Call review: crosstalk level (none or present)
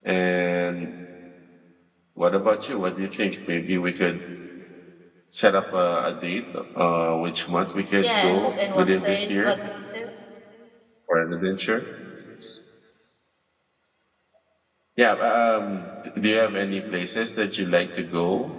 present